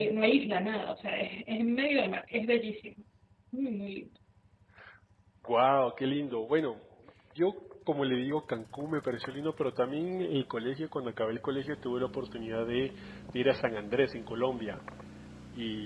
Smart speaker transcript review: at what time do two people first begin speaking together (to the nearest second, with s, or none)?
none